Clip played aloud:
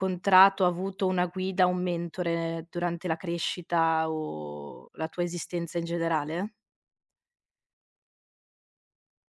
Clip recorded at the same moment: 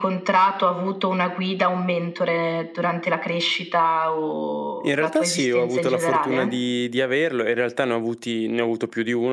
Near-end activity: present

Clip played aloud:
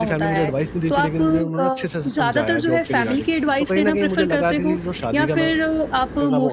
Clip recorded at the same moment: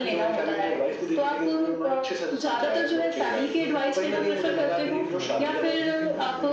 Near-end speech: present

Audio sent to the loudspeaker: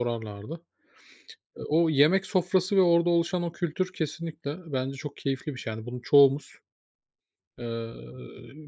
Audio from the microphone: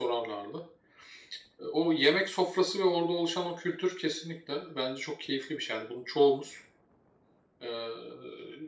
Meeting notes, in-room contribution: none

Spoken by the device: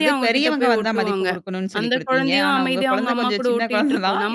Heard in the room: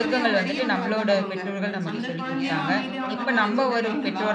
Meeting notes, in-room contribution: present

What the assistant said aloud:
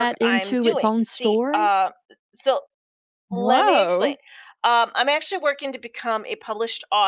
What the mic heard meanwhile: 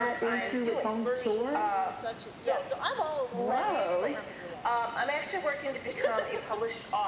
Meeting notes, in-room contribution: present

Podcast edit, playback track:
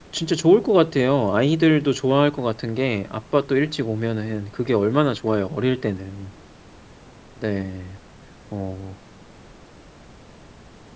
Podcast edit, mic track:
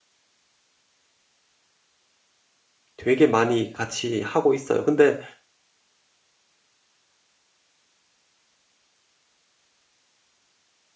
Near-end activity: present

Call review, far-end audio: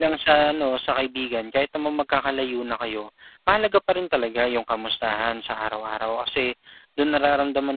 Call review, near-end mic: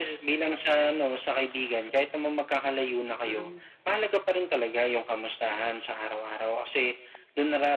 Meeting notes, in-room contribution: present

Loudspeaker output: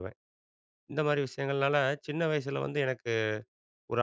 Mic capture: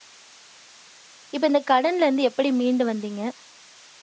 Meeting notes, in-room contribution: present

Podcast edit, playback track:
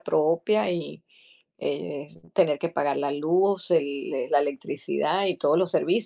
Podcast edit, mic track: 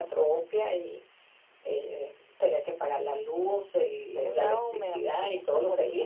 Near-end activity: present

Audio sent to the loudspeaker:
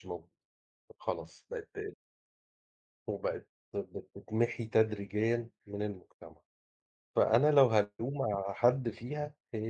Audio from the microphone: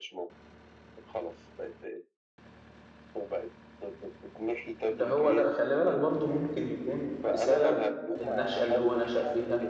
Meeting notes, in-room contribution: present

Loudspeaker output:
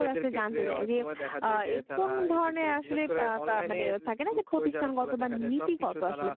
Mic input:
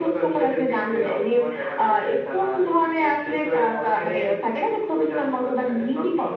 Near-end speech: none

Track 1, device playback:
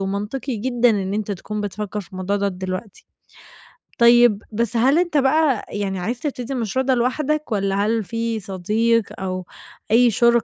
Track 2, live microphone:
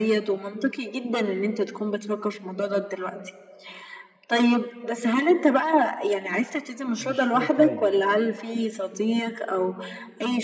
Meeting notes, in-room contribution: present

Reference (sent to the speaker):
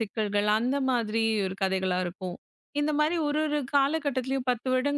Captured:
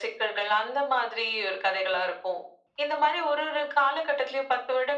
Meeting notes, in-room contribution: none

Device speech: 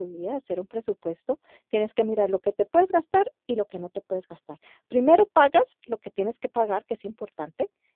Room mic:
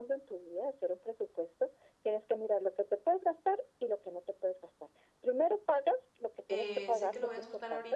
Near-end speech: present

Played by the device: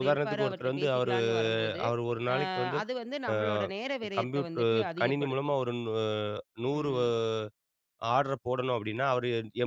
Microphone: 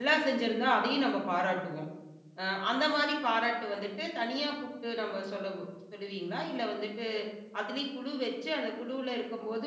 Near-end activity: present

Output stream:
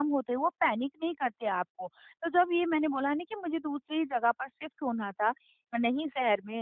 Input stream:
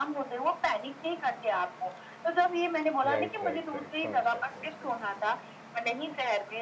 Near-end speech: present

